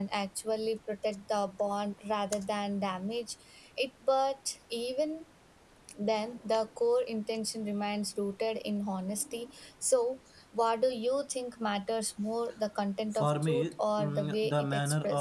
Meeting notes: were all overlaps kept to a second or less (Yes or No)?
No